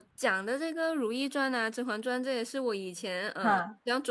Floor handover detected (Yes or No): No